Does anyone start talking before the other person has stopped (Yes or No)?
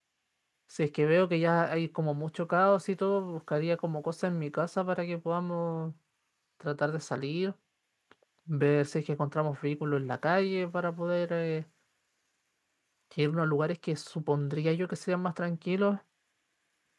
No